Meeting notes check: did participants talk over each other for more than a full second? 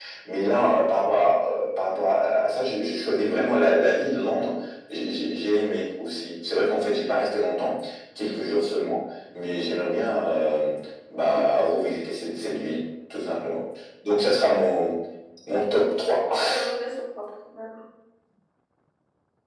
No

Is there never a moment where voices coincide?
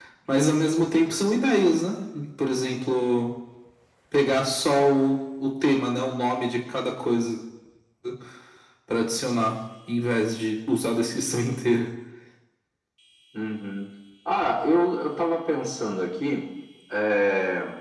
Yes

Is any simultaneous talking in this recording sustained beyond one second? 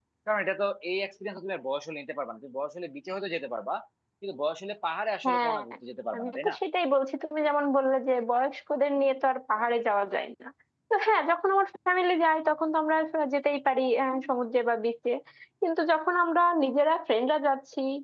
No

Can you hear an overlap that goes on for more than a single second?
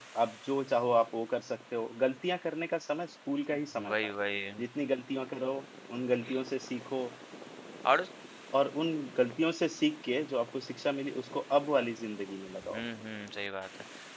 No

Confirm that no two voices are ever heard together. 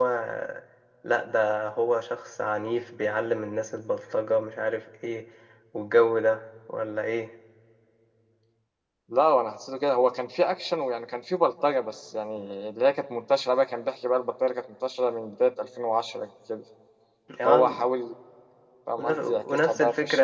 No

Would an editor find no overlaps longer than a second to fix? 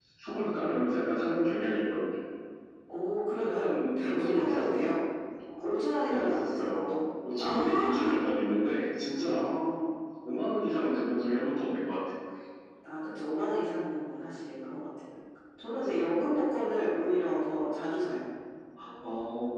No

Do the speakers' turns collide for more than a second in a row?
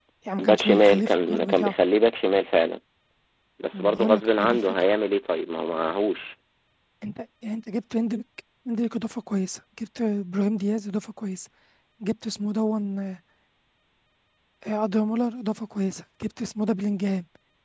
Yes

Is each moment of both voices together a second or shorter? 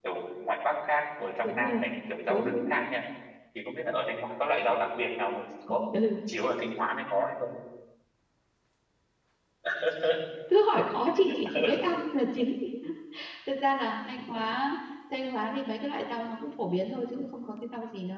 Yes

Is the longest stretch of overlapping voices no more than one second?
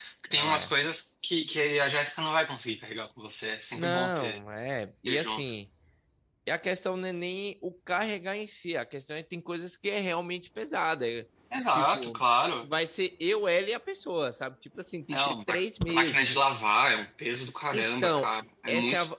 No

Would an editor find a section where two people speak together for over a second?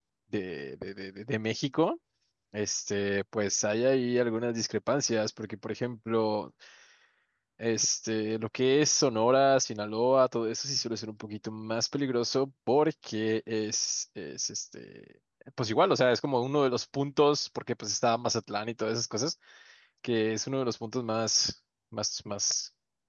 No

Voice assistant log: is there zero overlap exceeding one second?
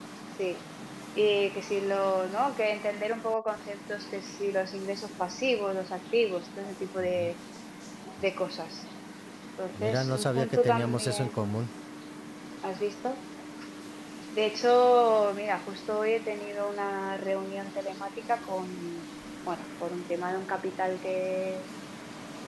No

